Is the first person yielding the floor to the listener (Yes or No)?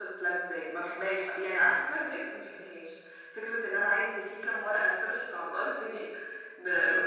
Yes